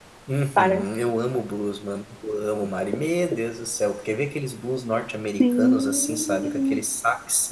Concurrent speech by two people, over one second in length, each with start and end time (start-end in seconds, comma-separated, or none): 5.4-6.8